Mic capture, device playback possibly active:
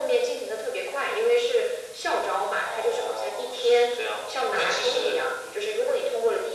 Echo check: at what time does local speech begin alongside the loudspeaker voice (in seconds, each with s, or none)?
none